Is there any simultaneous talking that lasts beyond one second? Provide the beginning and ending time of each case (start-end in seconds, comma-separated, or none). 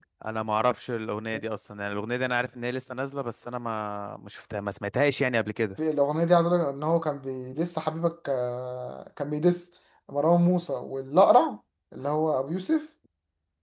none